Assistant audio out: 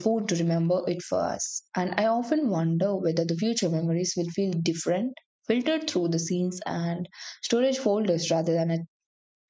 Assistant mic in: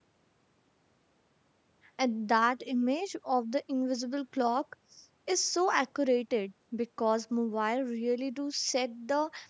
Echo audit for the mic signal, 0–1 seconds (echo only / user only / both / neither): neither